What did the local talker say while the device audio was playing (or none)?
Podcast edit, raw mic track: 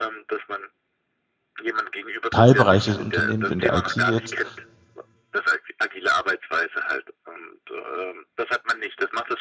Teilbereich des Unternehmens in der IT jetzt,